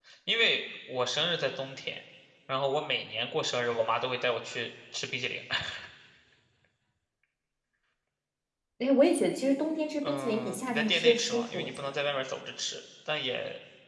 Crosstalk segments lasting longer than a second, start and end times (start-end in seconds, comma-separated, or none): 10.0-11.9